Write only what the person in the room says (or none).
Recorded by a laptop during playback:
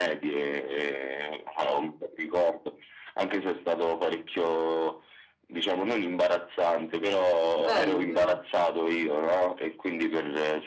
bello però.